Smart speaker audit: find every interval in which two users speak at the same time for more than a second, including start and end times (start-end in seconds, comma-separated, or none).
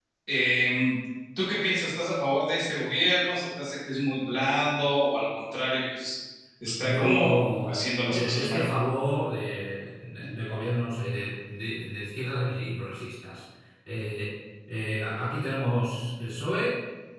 6.8-8.6